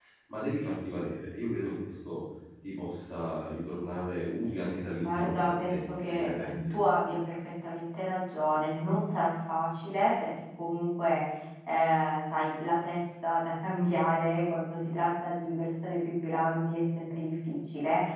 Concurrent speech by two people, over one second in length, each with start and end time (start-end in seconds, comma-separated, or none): 5.0-6.8